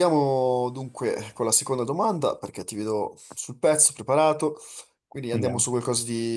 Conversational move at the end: listening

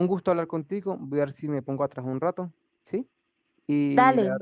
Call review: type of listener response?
listening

